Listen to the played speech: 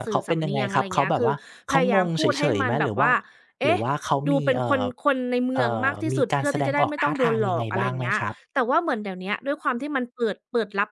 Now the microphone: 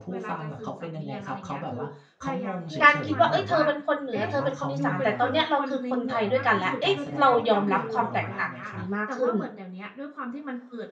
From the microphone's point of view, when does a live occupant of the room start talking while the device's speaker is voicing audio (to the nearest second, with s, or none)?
3 s